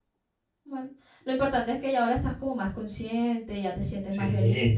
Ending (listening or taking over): listening